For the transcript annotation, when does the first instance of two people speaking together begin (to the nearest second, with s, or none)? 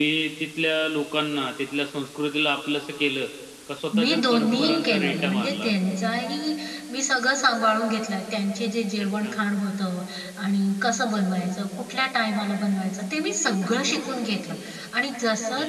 4 s